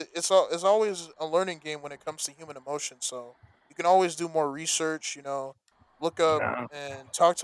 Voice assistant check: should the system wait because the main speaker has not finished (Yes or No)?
Yes